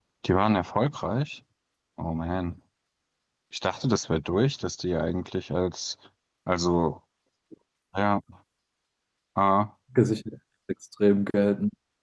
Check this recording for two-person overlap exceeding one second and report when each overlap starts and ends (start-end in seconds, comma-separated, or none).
none